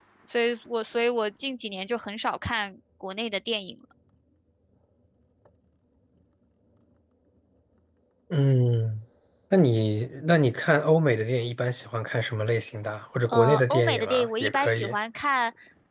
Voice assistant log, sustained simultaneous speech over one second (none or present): present